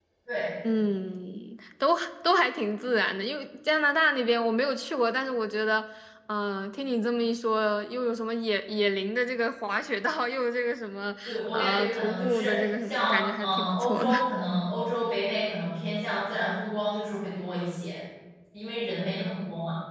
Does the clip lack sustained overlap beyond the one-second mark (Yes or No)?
No